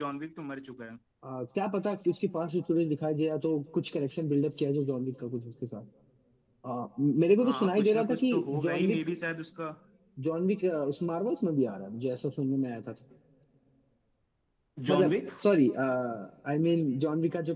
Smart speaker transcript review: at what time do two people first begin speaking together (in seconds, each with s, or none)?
7.4 s